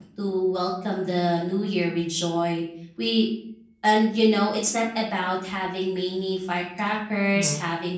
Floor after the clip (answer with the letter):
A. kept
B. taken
A